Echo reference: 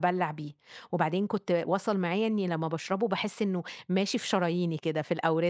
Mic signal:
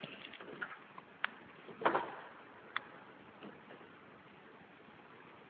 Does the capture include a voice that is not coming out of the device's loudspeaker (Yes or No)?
No